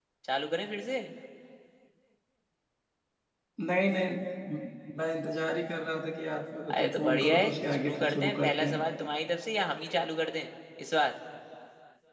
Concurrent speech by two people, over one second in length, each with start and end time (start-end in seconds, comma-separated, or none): 6.7-8.8